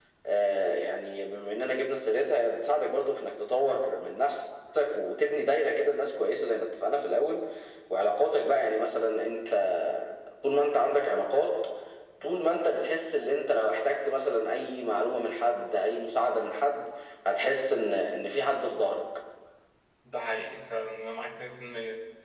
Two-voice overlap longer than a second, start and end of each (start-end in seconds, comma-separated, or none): none